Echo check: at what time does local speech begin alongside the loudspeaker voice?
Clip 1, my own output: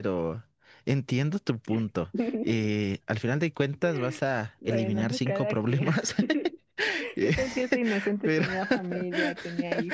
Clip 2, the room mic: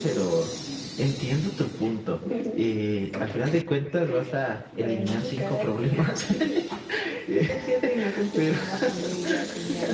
none

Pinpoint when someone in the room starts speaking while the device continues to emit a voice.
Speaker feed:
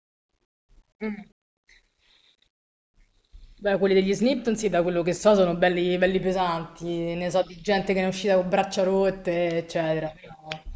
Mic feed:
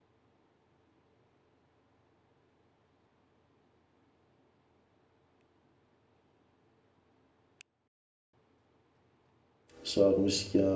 9.8 s

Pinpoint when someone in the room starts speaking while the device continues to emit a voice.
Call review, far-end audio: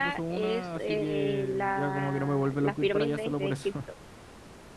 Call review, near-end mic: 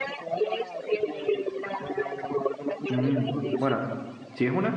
2.9 s

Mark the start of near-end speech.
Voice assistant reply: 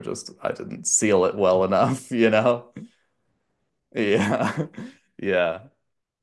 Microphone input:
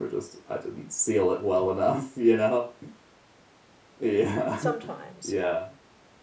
4.5 s

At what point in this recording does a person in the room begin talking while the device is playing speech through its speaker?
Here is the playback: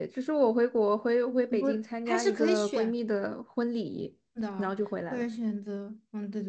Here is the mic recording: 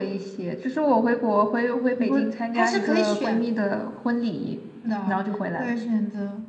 none

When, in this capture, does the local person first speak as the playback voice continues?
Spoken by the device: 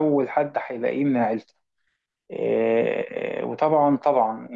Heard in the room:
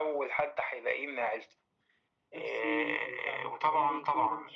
2.3 s

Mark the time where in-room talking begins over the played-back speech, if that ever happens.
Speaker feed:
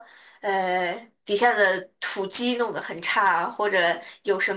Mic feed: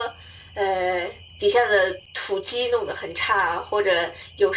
none

